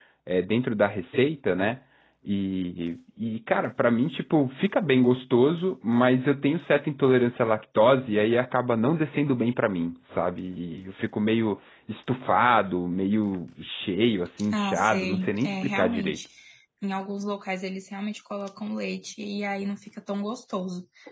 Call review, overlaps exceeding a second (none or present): present